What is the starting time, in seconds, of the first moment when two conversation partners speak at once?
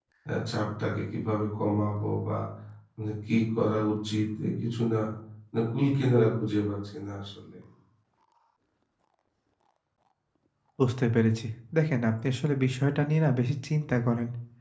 none

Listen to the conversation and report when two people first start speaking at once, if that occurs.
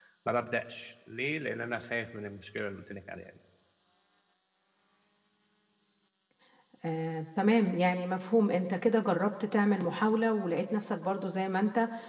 none

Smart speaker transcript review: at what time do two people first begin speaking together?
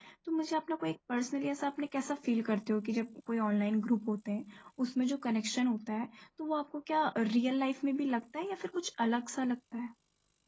none

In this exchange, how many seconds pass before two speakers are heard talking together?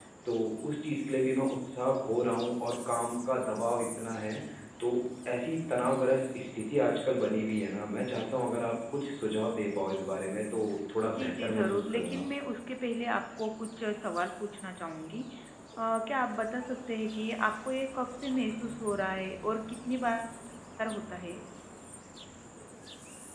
11 s

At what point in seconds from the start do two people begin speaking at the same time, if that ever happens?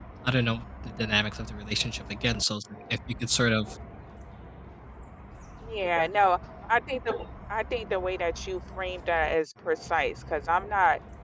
none

